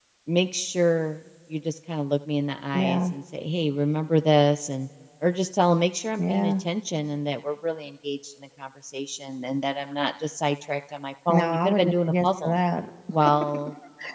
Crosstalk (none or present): present